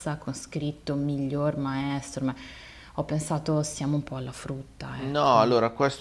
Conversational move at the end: taking over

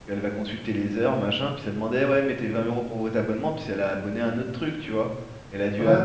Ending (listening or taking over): listening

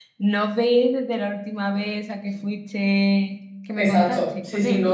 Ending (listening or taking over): taking over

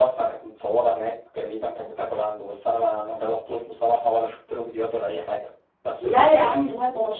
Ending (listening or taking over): taking over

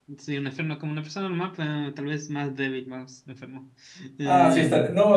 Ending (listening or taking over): taking over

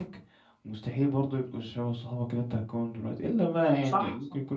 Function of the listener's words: taking over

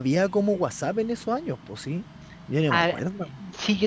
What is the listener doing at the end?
taking over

